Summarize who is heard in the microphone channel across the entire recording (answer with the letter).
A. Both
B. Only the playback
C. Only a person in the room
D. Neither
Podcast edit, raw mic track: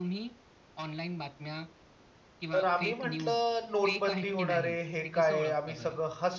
A